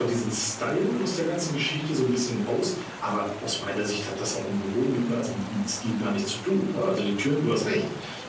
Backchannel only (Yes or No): Yes